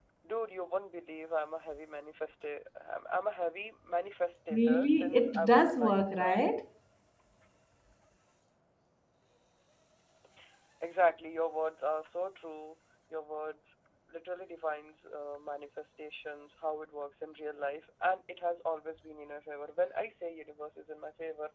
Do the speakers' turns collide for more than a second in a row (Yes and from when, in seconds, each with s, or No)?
Yes, from 4.5 s